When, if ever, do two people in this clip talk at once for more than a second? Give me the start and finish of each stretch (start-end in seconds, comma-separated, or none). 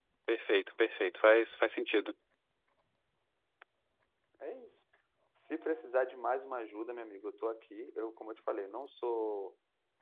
none